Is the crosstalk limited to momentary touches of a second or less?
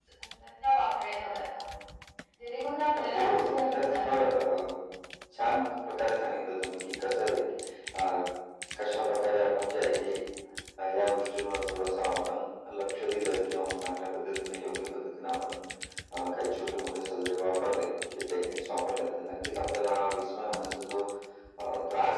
No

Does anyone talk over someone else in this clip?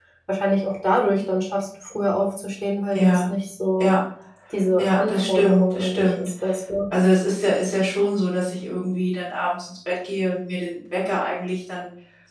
Yes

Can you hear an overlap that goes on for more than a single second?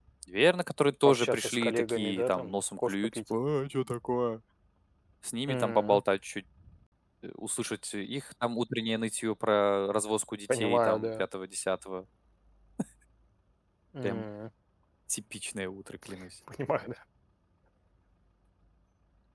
Yes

